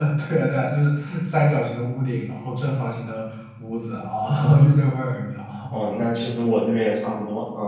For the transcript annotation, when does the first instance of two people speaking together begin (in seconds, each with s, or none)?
none